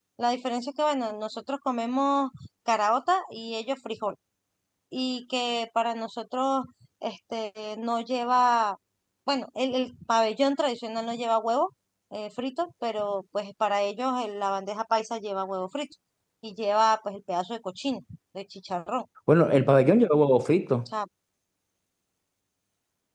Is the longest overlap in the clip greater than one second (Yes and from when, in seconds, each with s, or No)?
No